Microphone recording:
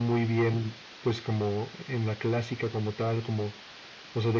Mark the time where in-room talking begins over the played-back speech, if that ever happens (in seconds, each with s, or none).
none